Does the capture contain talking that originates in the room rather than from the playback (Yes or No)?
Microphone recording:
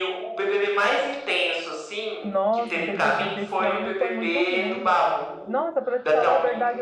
Yes